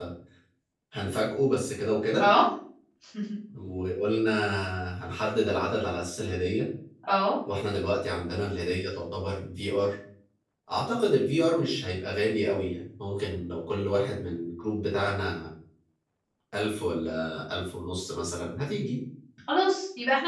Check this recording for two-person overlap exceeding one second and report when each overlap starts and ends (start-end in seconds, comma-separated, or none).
none